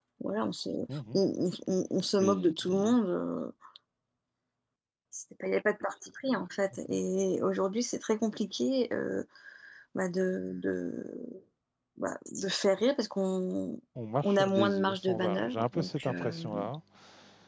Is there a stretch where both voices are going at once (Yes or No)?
Yes